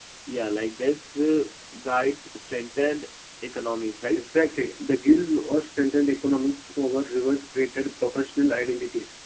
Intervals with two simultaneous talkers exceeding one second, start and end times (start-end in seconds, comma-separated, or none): none